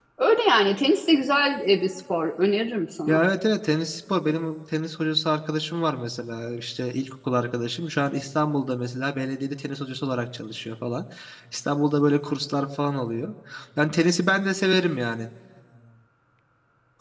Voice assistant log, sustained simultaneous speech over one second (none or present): none